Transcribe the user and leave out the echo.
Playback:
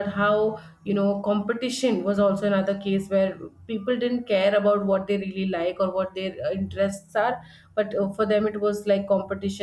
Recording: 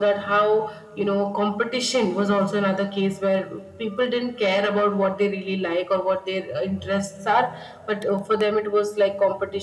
none

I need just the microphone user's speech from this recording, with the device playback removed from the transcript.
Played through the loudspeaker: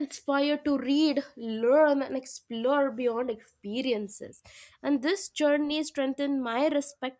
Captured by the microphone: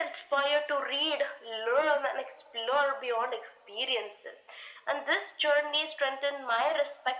none

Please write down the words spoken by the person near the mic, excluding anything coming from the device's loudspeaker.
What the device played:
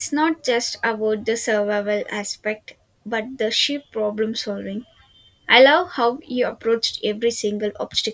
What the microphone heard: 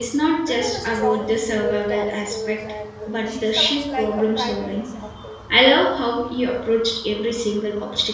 I love a strong female characters and she sounds like a prime example.

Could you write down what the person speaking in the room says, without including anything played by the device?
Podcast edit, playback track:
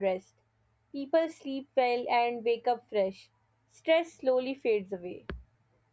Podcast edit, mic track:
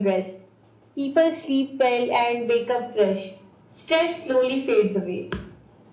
none

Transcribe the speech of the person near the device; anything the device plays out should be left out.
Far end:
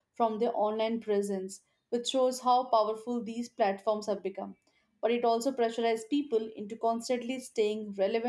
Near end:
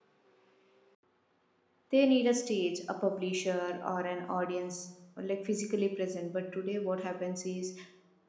they need a stage, a publisher, or an audience like physically present. But today, what happens is

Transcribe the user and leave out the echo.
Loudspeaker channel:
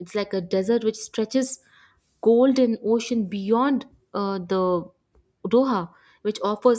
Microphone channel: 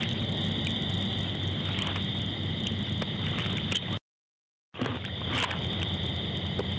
none

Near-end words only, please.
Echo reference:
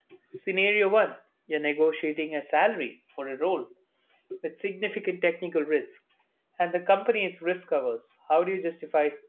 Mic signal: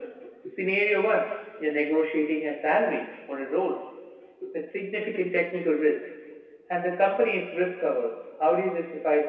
none

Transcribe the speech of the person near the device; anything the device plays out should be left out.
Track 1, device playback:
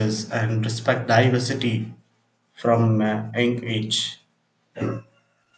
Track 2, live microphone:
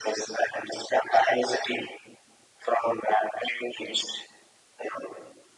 none

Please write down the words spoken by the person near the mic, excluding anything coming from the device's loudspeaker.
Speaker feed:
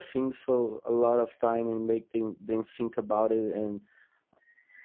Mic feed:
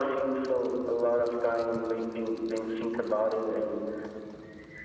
none

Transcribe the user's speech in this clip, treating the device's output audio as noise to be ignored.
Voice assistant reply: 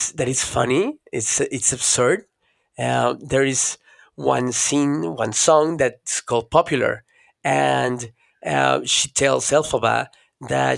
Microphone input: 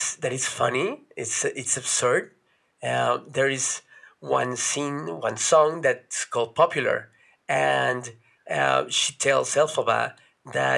none

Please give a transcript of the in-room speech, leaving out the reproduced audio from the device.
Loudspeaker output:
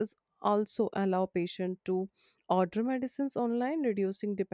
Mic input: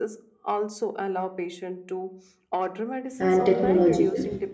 And technologically,

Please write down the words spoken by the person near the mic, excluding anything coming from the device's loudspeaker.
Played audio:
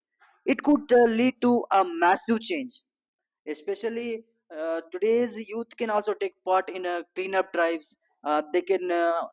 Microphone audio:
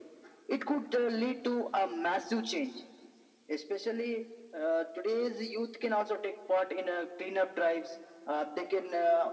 none

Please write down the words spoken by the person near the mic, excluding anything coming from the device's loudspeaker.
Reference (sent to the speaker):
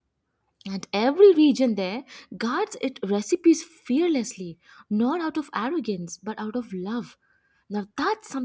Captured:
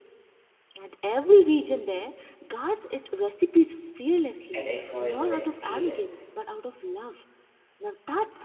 an enjoyable experience.

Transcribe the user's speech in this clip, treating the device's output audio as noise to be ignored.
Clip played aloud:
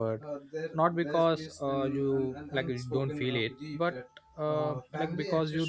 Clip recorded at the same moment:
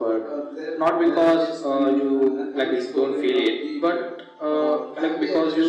none

